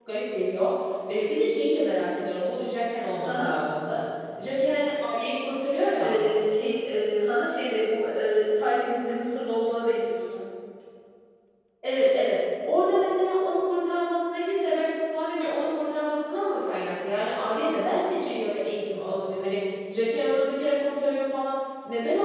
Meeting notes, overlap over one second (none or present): none